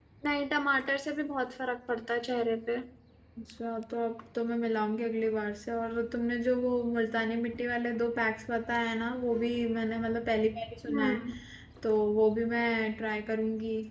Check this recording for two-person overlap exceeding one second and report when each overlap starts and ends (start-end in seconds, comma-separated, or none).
none